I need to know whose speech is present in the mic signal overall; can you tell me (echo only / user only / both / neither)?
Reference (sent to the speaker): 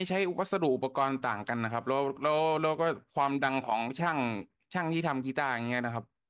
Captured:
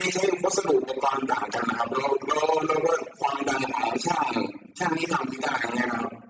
echo only